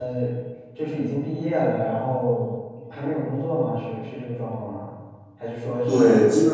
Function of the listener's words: taking over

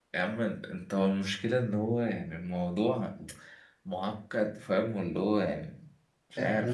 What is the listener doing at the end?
taking over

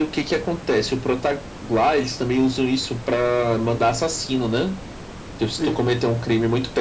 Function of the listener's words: listening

